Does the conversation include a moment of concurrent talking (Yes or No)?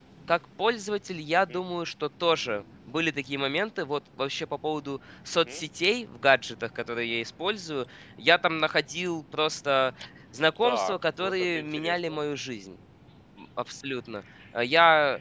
Yes